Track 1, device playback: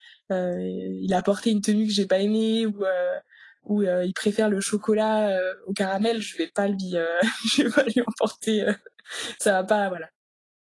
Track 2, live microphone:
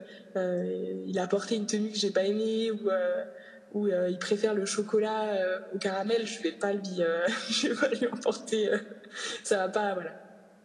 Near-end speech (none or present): none